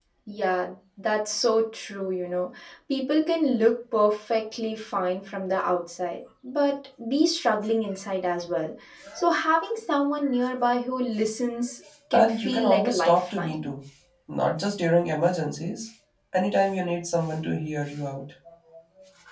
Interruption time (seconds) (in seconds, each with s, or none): 12.1 s